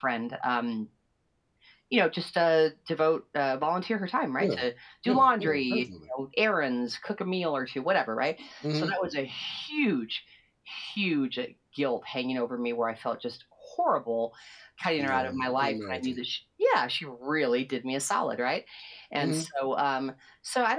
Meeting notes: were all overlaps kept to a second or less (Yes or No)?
No